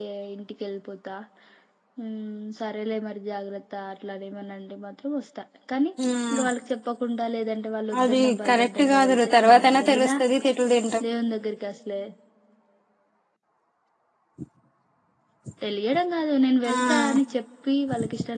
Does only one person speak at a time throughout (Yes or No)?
No